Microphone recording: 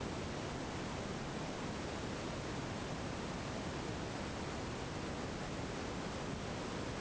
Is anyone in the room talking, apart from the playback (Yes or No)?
No